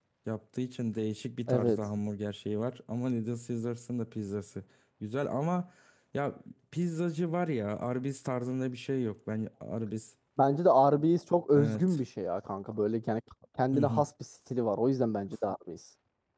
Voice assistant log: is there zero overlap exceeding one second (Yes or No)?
Yes